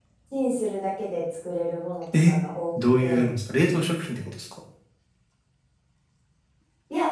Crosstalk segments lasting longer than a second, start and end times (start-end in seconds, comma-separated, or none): none